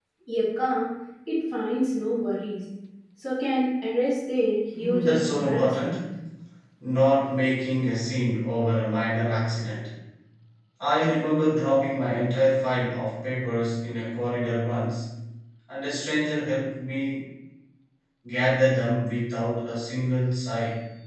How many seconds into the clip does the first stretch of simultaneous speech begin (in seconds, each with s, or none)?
4.7 s